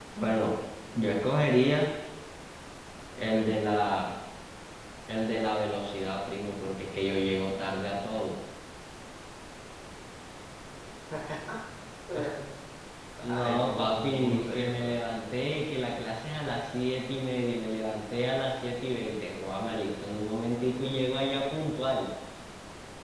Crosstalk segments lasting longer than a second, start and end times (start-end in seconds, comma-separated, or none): 13.2-15.0